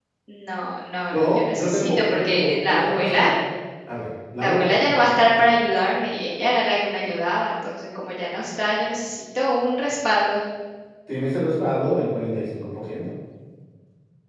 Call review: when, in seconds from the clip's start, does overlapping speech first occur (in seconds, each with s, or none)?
1.1 s